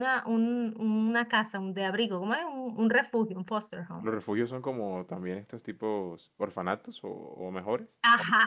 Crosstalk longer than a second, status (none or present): none